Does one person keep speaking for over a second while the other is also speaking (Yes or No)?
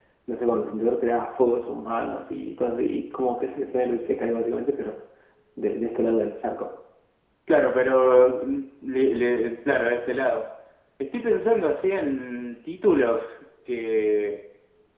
No